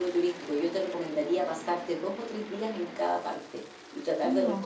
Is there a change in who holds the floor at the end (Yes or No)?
No